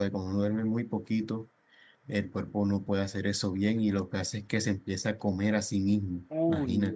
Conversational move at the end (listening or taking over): taking over